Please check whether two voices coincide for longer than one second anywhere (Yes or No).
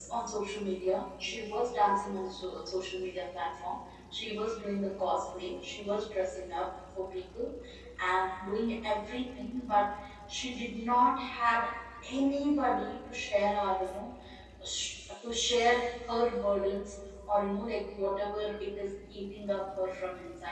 No